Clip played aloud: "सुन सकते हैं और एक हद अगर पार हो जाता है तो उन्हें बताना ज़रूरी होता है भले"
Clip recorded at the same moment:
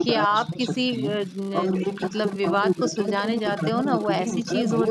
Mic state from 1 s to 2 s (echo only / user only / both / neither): both